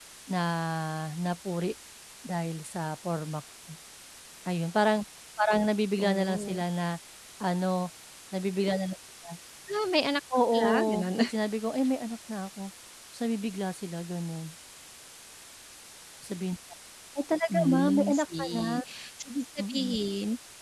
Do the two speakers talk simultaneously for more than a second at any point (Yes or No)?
Yes